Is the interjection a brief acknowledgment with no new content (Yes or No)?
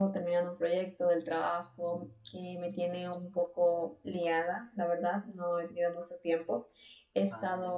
Yes